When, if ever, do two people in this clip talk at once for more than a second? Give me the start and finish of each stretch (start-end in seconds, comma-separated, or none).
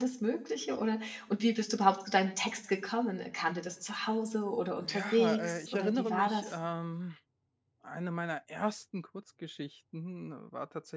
4.8-6.5